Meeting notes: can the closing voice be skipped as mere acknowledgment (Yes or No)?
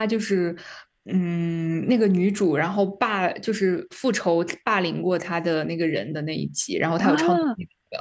No